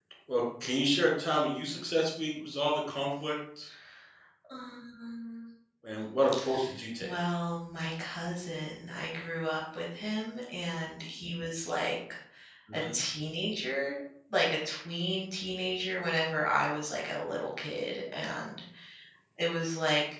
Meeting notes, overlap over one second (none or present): none